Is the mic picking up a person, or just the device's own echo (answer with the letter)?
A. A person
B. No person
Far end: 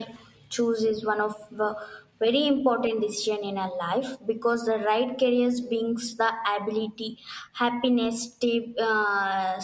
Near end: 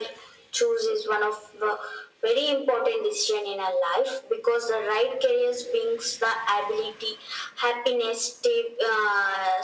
B